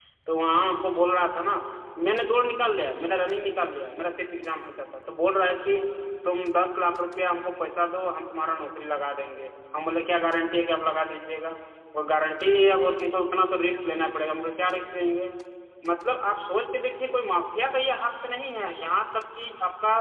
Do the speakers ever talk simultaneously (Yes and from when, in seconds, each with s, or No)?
No